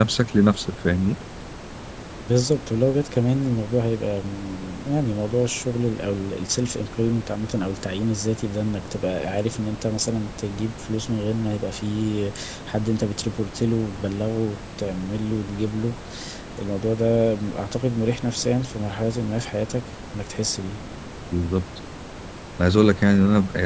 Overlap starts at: none

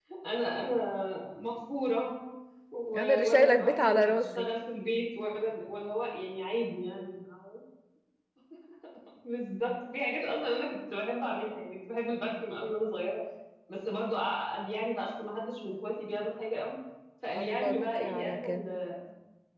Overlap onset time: 3 s

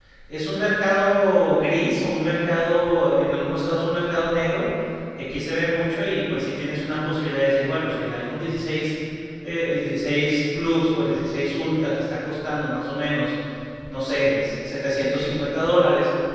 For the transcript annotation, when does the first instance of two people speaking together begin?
none

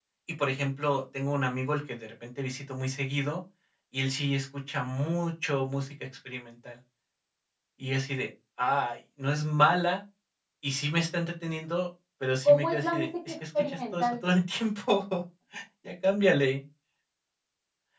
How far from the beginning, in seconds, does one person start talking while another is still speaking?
12 s

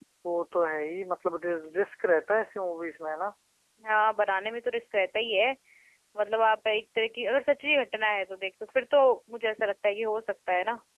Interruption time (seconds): none

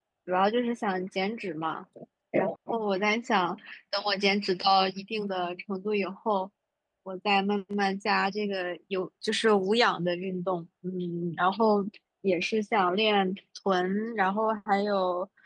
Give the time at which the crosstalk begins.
none

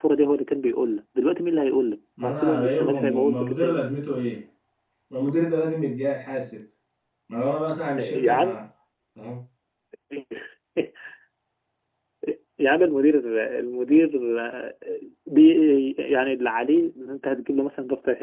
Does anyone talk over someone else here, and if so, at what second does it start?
2 s

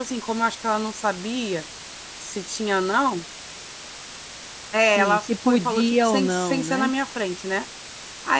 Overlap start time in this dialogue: 5 s

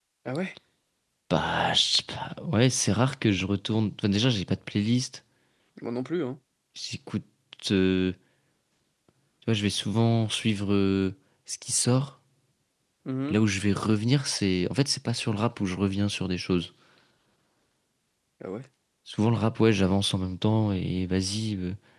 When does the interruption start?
none

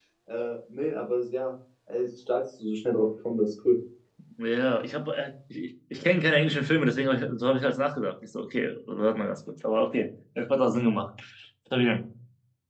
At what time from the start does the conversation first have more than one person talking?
none

